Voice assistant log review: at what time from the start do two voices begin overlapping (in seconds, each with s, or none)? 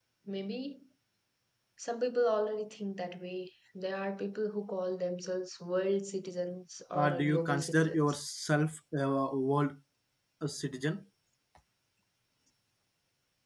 6.9 s